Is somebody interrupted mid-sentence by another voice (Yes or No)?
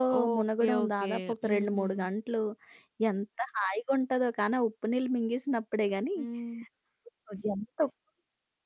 Yes